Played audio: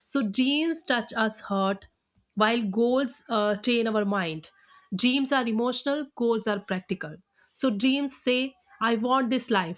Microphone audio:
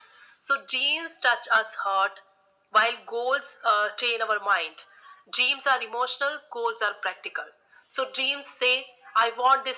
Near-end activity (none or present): none